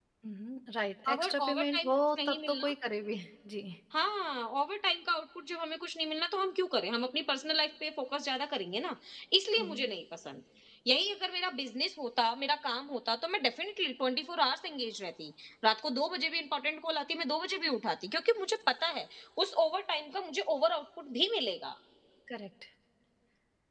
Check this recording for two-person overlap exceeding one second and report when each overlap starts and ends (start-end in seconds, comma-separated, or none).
1.1-2.7